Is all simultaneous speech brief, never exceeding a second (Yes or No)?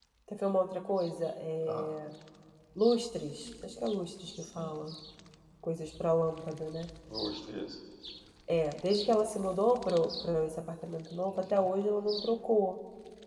Yes